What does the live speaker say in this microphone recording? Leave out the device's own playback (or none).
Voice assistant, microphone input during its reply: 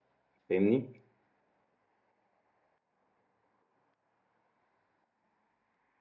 فاهمني